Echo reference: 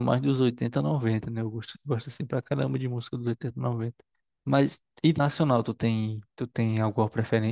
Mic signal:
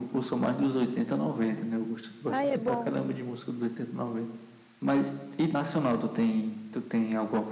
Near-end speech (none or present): present